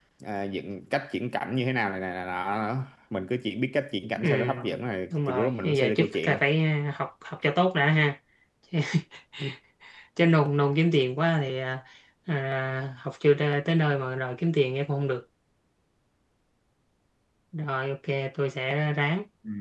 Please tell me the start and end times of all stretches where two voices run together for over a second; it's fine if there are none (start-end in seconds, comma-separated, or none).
5.1-6.4